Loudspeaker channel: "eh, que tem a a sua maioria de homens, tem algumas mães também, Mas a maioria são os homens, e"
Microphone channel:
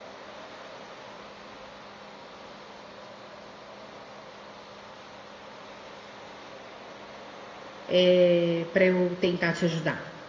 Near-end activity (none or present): present